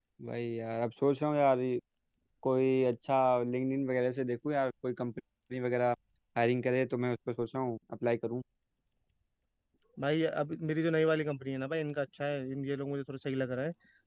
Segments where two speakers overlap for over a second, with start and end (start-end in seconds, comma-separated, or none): none